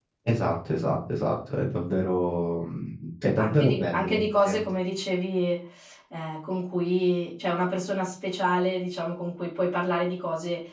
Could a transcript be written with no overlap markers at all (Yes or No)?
No